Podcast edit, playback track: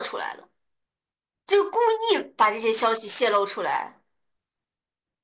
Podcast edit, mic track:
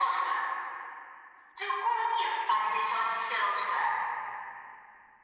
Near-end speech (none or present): none